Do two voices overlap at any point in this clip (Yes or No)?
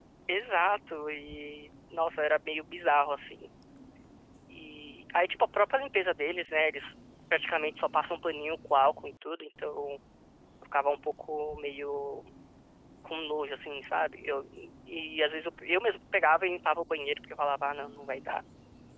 No